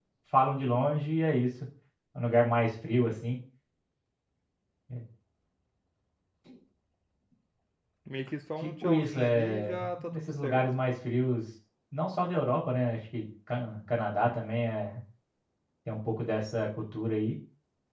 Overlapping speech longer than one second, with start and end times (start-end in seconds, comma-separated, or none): 8.6-10.6